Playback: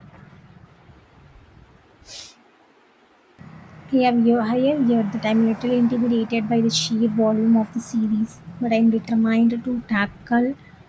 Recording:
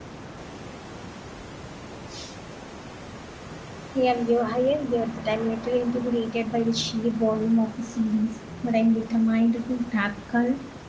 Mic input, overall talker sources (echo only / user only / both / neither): echo only